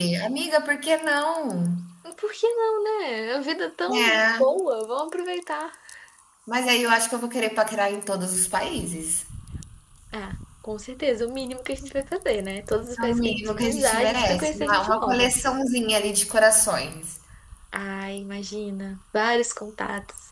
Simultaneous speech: Yes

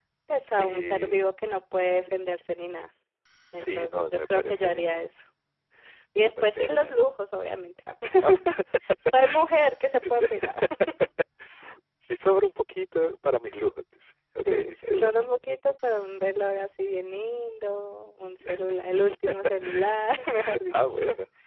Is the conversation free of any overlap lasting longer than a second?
No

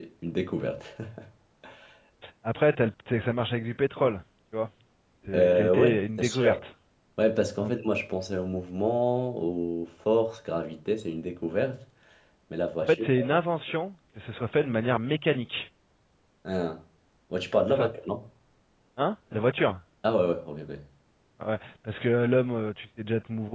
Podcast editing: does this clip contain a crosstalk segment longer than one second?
Yes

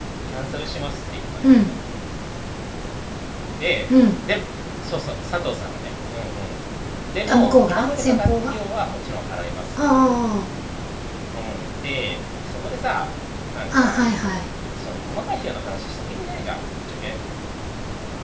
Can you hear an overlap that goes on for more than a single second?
Yes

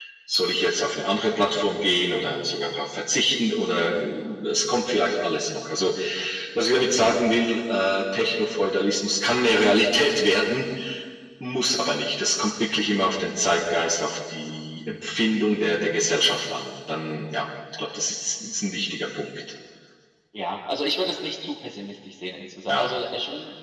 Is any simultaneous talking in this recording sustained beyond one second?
No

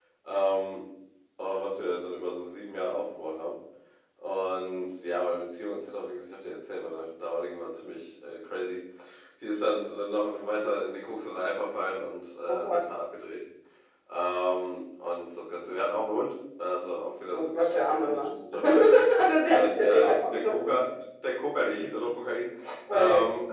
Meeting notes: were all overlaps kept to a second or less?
No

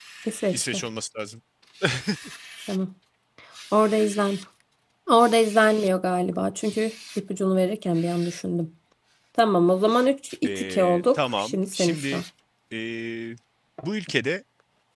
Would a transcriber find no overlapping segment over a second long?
No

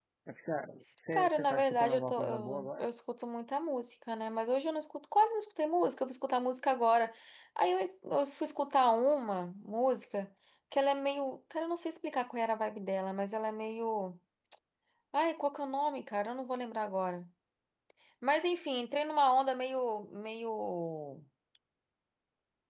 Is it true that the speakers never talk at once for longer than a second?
No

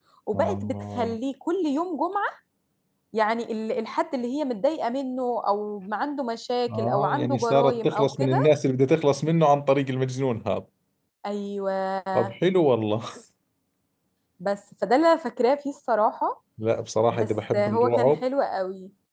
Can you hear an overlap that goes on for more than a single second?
Yes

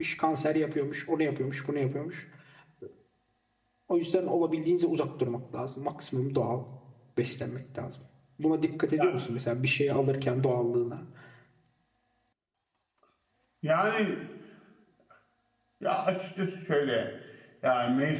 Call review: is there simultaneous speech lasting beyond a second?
No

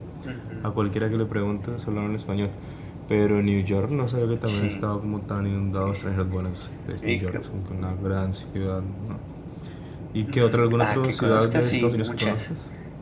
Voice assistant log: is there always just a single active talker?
No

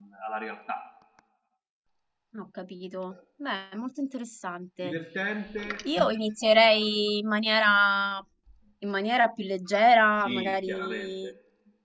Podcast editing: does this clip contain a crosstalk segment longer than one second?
Yes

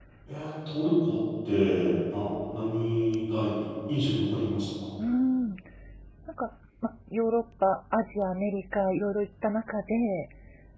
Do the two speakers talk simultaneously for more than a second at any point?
No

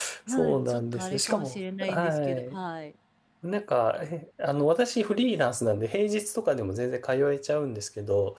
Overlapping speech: Yes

